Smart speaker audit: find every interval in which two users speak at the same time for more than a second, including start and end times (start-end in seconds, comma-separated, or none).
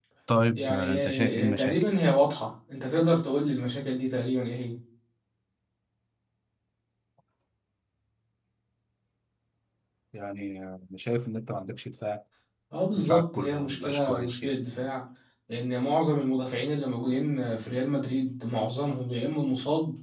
0.5-1.8, 13.0-14.5